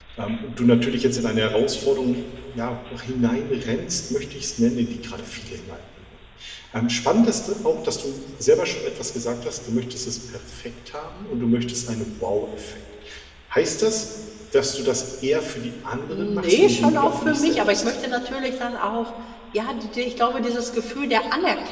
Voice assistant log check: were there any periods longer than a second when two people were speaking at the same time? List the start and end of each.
16.1-17.9

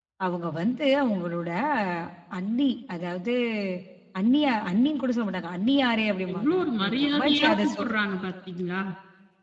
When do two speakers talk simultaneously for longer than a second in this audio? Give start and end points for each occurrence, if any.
6.3-7.8

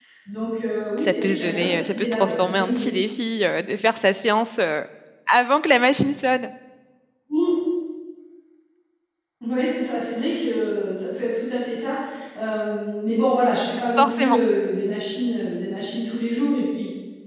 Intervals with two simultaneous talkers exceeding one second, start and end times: 1.0-2.9

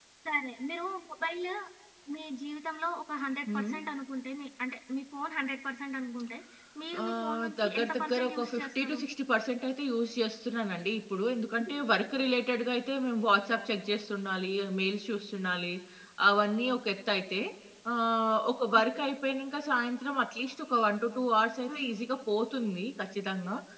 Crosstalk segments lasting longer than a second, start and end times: 7.0-9.0

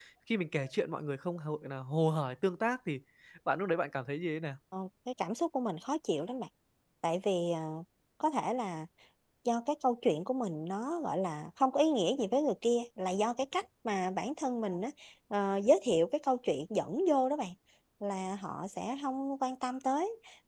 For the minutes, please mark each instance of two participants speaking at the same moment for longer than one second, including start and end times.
none

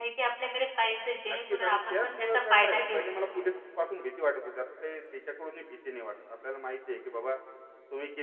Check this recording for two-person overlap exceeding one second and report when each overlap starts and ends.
1.3-3.1

